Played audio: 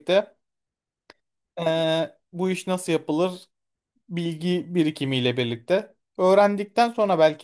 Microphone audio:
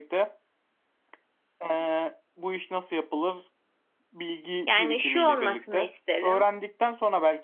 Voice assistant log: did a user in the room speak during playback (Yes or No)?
Yes